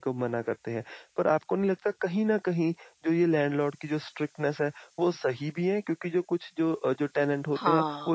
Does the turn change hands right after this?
No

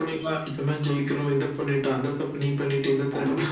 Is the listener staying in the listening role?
No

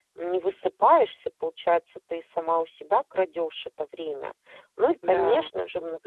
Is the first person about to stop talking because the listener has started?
No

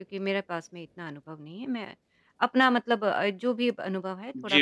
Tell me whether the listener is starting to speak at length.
Yes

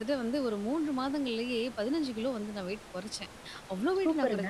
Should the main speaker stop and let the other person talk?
No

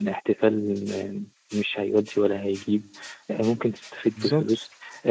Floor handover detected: No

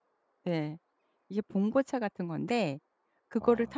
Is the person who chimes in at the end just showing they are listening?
Yes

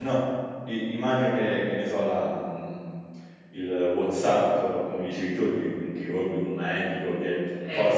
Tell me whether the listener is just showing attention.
Yes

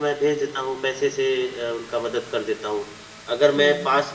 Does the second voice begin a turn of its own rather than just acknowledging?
No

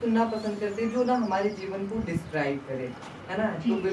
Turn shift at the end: No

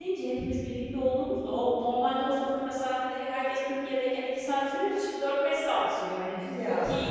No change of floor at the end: Yes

